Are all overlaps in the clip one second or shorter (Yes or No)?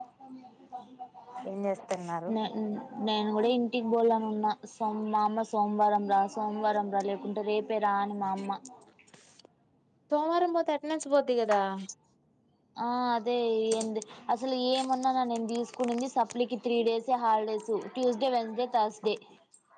Yes